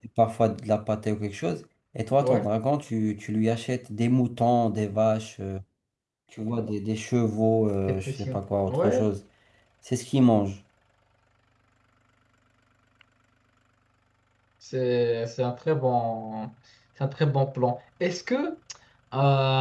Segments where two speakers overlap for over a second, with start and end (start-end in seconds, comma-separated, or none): none